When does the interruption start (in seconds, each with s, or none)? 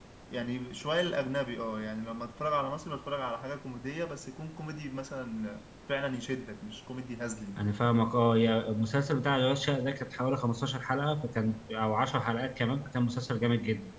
none